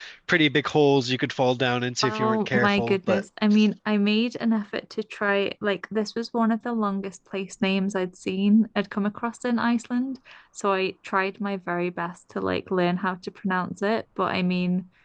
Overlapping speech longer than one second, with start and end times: 2.0-3.2

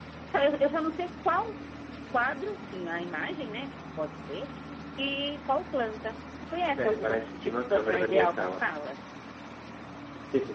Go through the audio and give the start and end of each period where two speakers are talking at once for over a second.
6.8-8.6

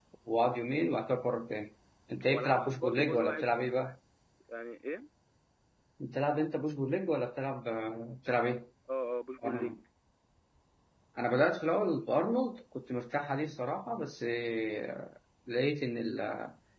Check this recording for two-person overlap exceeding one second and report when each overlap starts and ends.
2.3-3.5

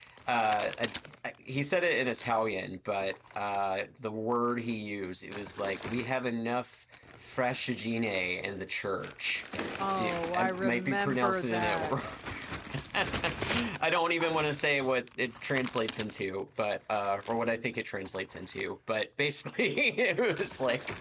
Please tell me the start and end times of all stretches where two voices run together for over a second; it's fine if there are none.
9.9-12.0

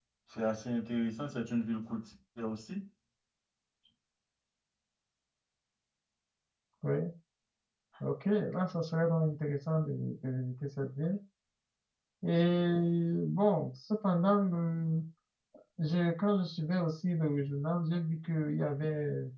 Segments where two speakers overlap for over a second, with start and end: none

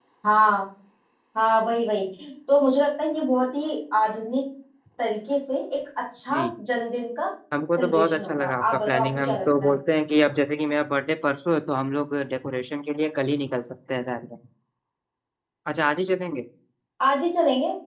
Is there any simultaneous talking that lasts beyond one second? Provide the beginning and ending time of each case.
7.8-9.7

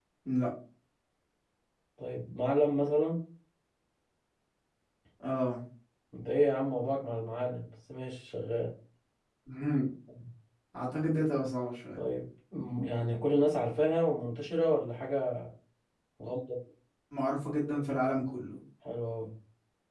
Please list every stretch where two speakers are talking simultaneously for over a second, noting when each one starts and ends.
none

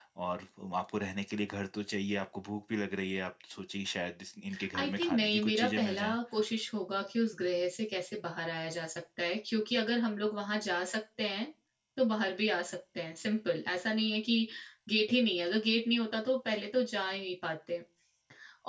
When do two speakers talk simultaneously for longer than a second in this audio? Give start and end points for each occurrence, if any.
4.8-6.2

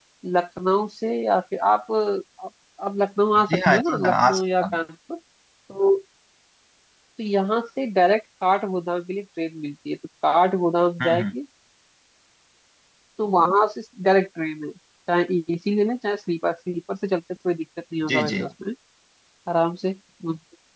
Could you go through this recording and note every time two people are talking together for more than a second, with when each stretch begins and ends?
3.5-4.8

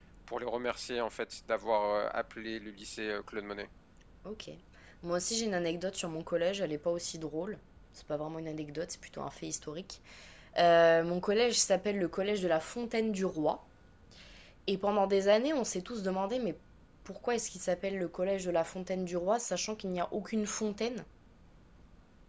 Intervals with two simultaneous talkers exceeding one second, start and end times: none

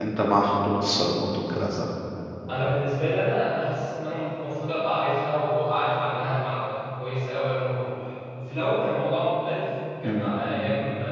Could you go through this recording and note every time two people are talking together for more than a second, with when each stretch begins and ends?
none

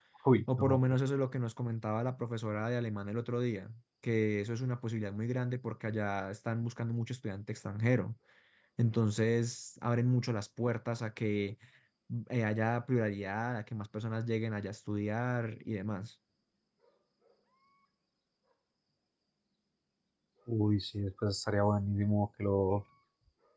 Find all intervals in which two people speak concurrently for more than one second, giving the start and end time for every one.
none

